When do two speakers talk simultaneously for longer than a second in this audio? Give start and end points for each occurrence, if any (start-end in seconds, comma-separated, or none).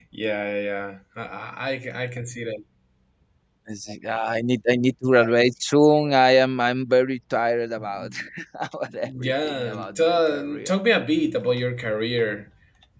9.0-10.8